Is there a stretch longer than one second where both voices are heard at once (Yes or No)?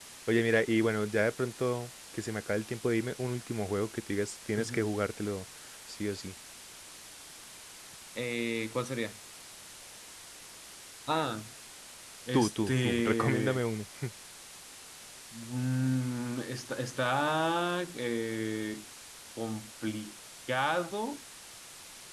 Yes